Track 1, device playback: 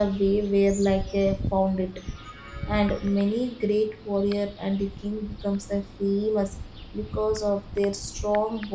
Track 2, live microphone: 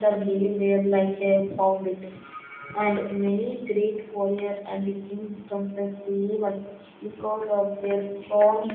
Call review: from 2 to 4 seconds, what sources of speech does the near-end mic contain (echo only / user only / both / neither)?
echo only